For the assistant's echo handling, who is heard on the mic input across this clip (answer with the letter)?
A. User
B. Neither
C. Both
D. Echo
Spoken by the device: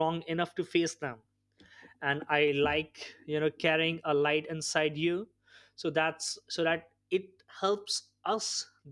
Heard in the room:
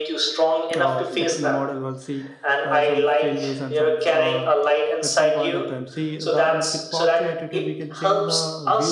C